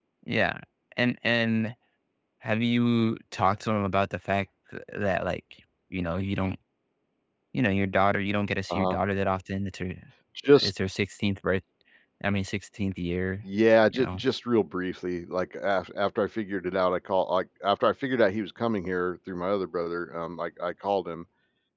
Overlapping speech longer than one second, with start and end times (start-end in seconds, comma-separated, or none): none